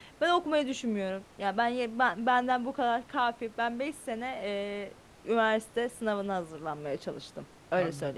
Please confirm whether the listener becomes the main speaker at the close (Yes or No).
Yes